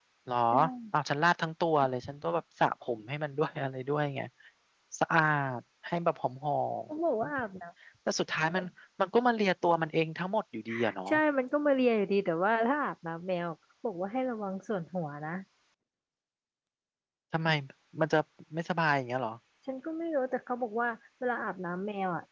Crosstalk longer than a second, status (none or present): none